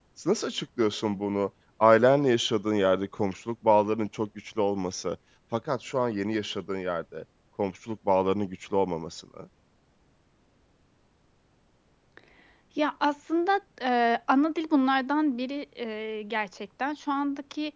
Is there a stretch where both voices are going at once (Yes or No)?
No